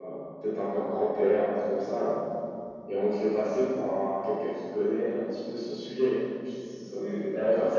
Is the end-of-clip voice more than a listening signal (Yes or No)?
Yes